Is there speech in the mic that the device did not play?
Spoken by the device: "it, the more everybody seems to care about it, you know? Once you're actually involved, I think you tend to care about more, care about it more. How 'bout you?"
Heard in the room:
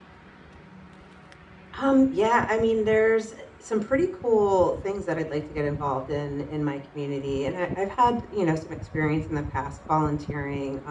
Yes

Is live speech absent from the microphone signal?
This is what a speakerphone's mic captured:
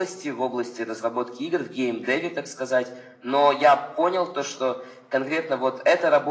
Yes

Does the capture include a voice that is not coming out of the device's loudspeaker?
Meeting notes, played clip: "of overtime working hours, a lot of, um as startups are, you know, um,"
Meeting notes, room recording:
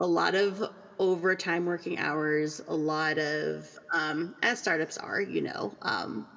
No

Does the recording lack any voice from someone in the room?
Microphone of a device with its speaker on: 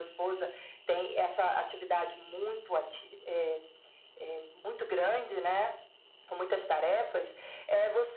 Yes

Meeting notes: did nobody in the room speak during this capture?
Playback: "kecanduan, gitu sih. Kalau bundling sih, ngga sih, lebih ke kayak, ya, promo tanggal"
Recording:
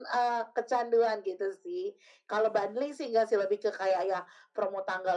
Yes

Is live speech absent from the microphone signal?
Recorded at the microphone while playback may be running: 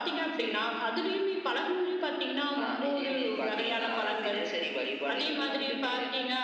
Yes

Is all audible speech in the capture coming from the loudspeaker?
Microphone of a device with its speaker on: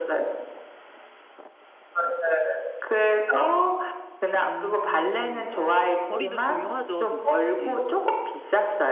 No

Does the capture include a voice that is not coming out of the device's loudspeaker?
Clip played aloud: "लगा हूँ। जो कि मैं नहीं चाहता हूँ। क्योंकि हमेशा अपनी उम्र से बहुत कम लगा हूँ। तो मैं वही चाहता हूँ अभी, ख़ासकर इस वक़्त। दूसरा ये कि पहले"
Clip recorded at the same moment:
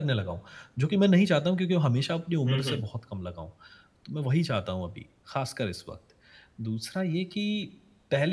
Yes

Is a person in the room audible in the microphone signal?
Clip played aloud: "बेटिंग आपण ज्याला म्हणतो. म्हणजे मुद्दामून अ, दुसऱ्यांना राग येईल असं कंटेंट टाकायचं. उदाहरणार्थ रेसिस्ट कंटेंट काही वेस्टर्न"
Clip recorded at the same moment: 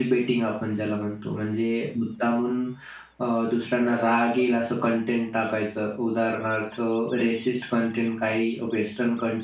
Yes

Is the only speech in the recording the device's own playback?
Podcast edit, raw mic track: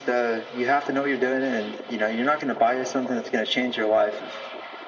Yes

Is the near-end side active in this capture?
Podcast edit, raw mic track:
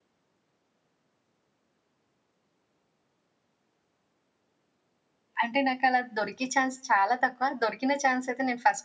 Yes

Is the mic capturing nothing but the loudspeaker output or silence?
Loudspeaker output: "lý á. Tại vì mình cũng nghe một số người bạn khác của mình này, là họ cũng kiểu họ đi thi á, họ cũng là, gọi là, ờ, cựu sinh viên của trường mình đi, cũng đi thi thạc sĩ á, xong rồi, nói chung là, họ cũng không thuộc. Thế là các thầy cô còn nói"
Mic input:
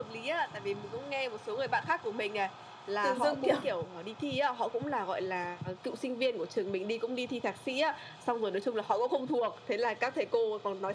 No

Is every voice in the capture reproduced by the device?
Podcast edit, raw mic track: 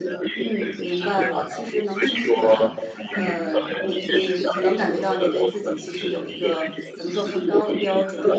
No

